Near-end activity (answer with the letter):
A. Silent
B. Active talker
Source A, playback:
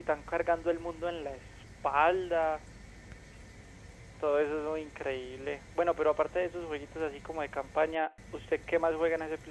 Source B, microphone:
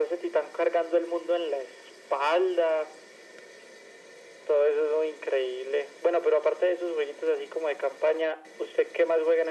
A